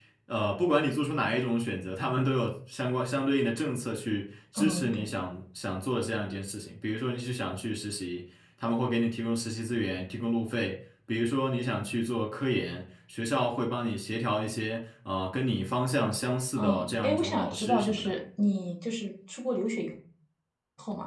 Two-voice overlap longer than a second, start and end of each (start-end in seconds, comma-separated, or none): 16.6-18.1